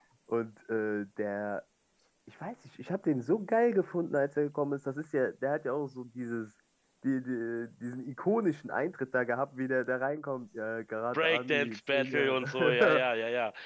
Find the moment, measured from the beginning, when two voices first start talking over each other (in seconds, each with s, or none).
11.1 s